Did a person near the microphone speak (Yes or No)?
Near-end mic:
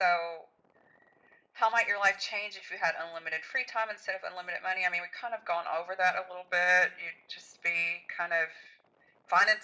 No